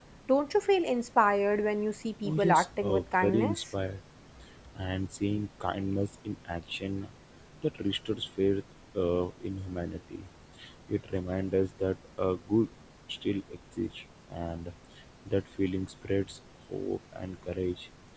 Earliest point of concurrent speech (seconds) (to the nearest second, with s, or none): 2 s